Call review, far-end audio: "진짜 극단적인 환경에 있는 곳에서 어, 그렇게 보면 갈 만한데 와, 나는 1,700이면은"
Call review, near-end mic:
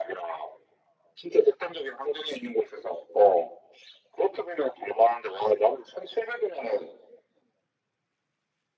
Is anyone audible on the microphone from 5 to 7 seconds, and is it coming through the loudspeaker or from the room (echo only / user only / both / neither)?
echo only